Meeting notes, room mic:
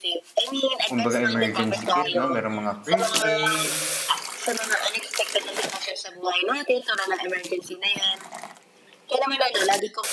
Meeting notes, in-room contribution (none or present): present